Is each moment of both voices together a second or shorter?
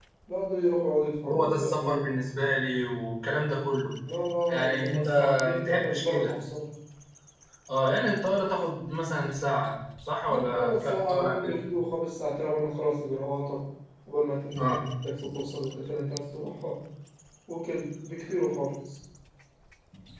No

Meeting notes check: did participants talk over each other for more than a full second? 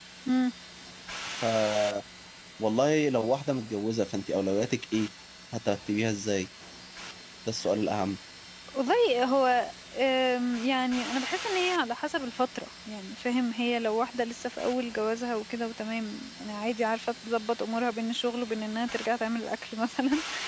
No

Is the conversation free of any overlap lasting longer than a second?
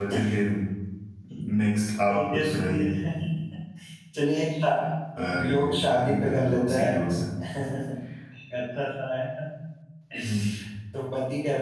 No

